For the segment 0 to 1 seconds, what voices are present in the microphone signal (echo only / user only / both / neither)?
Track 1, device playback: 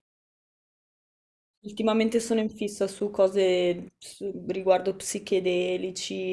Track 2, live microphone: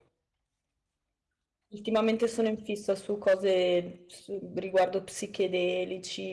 neither